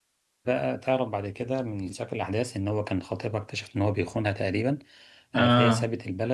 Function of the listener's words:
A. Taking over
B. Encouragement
B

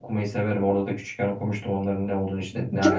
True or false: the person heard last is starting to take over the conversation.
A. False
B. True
B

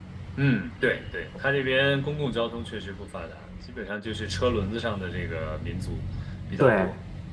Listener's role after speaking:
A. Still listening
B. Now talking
B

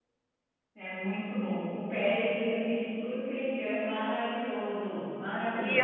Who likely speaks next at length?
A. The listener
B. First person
A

